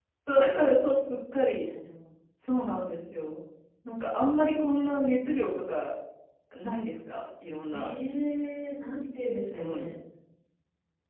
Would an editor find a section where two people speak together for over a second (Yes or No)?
No